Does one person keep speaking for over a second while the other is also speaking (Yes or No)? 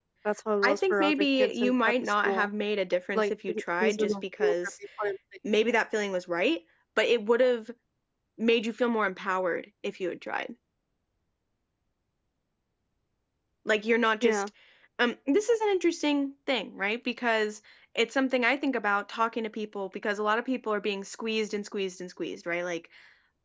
Yes